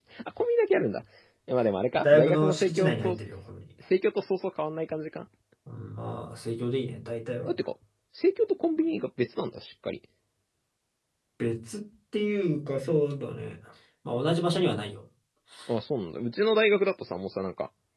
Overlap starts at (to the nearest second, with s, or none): 2 s